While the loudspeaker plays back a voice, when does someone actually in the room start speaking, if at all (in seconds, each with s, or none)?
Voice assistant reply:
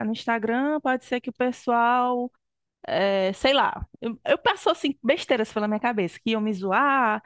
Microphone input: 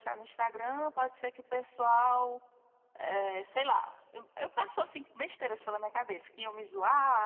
none